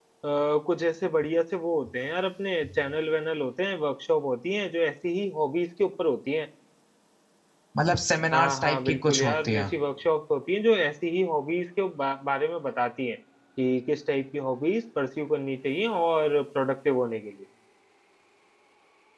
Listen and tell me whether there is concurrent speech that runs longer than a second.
Yes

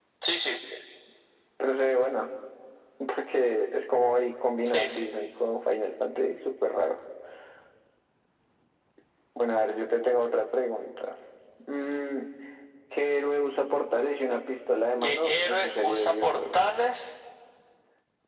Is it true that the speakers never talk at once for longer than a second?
No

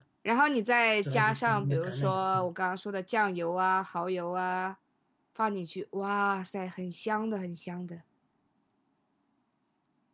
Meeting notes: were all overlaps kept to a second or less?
No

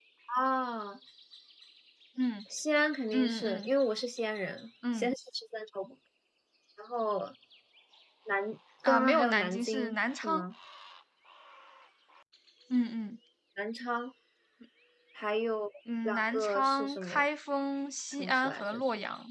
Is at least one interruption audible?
Yes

